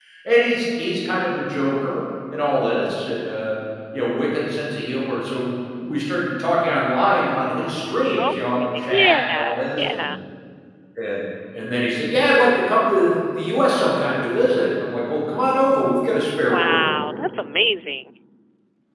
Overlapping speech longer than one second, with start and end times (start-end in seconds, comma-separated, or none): 8.2-10.1